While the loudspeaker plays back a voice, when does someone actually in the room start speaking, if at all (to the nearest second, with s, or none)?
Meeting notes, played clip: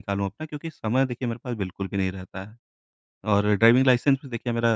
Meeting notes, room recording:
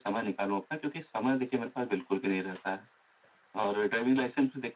none